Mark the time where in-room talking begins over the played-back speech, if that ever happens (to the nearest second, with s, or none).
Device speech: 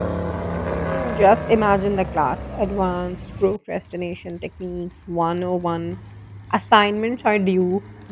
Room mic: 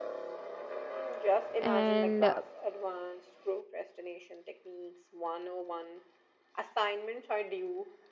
2 s